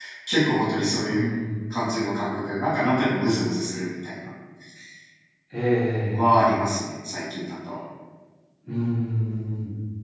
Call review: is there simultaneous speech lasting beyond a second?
No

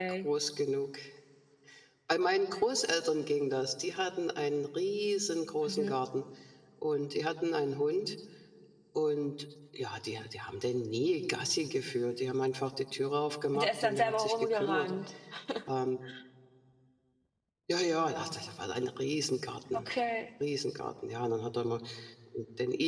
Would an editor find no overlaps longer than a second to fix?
No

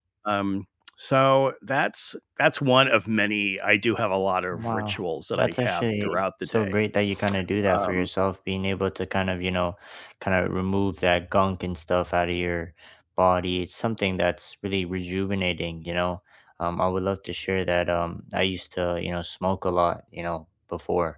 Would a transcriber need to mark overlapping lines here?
Yes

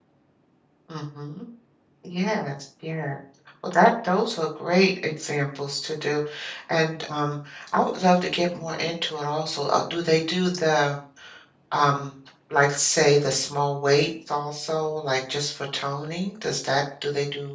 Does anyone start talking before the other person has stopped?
No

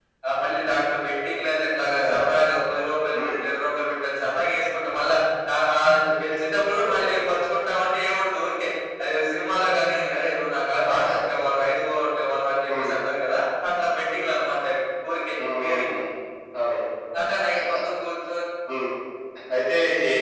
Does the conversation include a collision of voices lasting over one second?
No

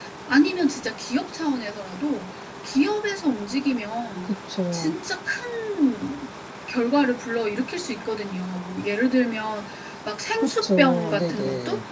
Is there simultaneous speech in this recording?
Yes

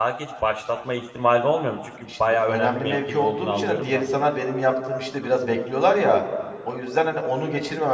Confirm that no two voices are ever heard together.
No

